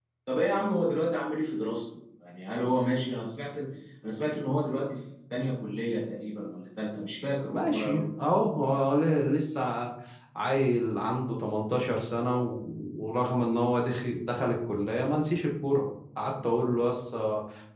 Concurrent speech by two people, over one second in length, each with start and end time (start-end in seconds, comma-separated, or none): none